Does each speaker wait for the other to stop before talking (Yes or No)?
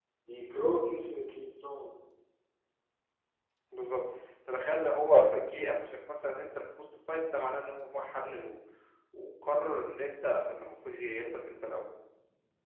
Yes